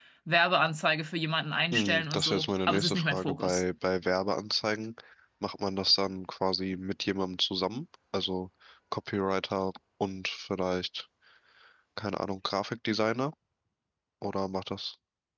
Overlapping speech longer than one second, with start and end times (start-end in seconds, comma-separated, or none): 1.7-3.6